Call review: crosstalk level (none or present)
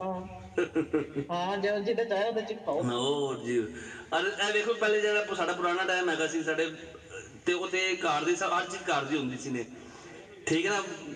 none